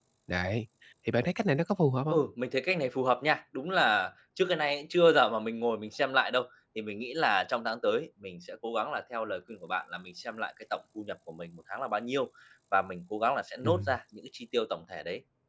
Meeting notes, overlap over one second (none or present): none